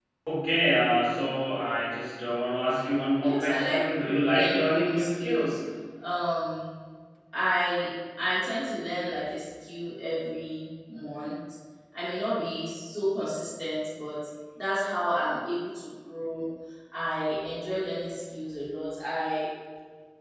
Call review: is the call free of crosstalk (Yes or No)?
No